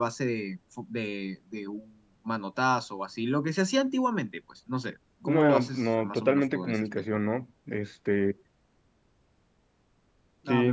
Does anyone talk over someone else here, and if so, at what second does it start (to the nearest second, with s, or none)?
5 s